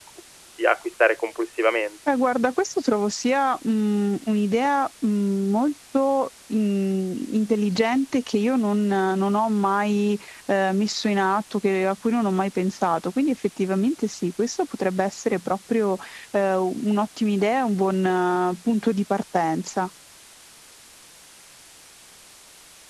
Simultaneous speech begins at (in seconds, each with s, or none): none